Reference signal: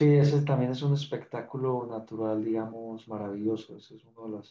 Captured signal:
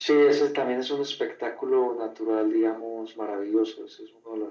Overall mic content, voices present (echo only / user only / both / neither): echo only